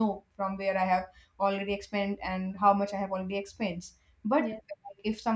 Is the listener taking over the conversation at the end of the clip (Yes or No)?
No